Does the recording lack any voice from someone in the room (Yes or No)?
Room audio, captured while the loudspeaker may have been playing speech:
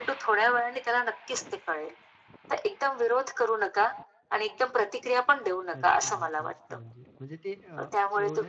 No